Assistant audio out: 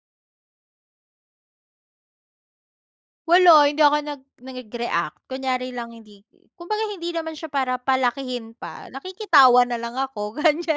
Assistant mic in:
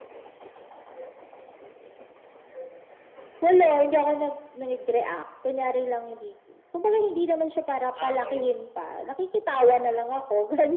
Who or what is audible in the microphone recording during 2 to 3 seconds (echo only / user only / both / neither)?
neither